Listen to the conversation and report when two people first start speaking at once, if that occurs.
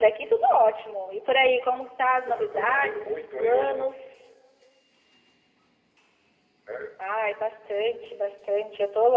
2.2 s

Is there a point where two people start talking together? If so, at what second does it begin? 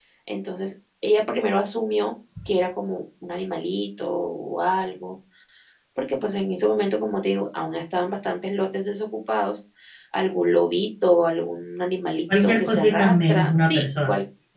12.3 s

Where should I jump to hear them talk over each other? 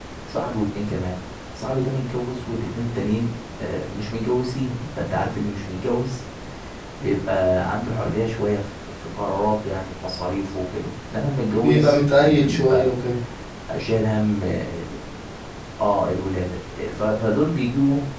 11.6 s

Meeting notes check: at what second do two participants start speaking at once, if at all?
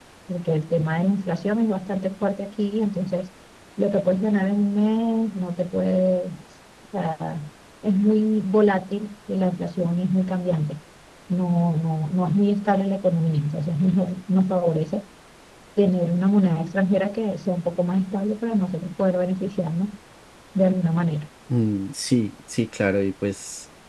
none

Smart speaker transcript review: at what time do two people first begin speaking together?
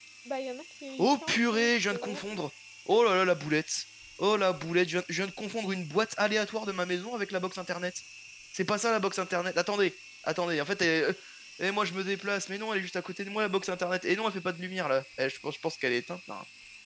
1.0 s

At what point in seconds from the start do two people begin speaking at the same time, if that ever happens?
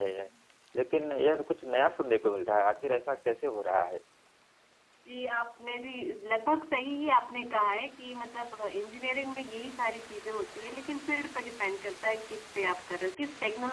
none

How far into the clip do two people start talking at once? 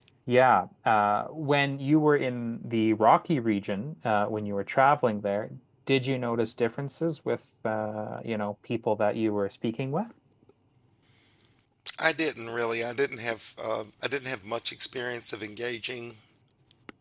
none

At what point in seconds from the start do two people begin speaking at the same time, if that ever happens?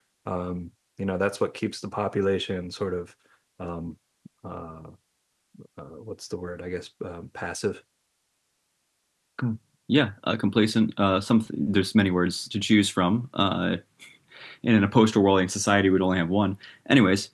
none

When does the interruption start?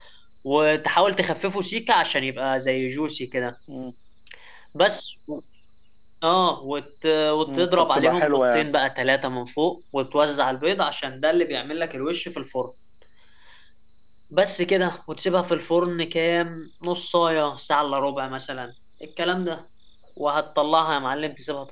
7.5 s

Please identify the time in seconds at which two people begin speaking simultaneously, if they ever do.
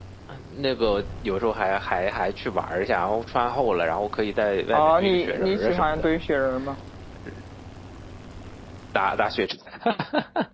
4.7 s

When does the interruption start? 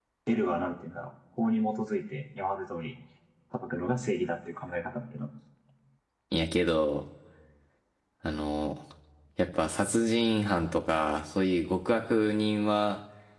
none

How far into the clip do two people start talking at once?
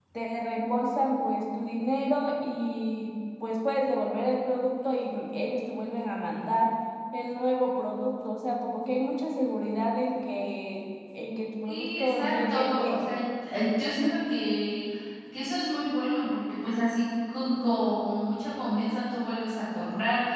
11.6 s

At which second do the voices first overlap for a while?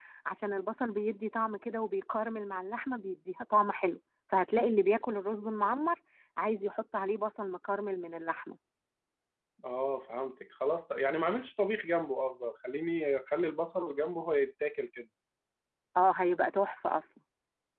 none

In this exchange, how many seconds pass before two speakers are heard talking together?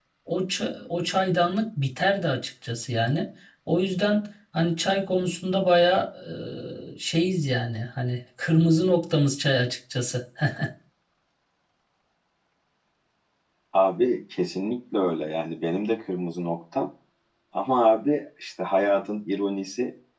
none

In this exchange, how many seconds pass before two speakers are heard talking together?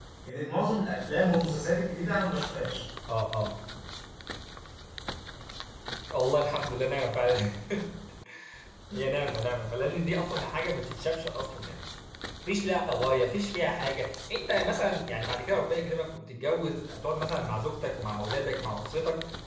none

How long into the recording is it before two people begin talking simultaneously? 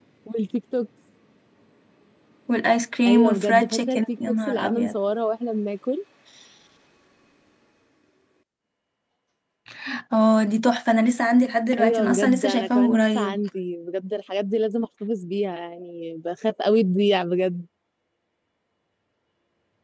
3.0 s

